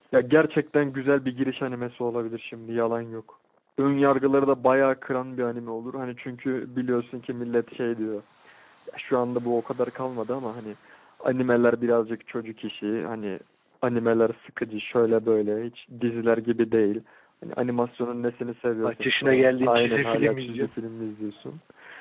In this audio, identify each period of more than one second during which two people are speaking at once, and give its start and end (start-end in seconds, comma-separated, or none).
18.8-20.7